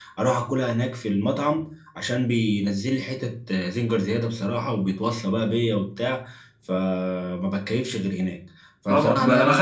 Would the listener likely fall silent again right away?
No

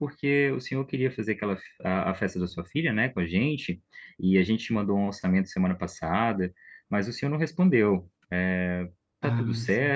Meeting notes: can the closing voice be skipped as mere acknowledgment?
Yes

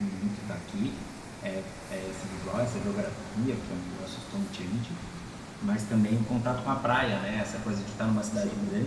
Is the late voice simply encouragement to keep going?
Yes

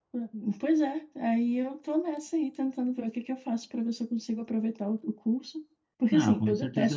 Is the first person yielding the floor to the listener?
Yes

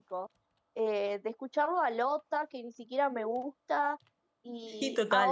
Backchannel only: Yes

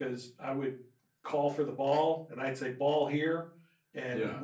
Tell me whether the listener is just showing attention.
Yes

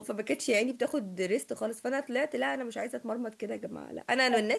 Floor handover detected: No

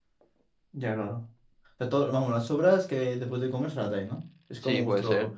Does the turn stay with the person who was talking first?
No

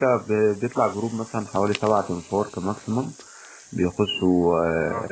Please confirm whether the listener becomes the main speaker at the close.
No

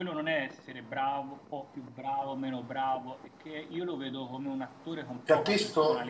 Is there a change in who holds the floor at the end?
Yes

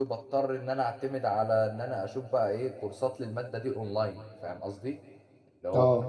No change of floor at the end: Yes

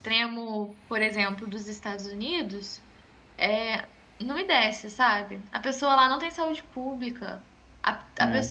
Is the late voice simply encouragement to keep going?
Yes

